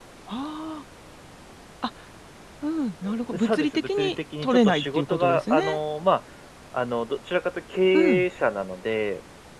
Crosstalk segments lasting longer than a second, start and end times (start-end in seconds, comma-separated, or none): 3.0-5.8